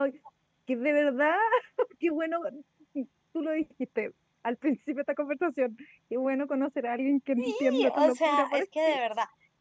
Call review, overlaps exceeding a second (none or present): present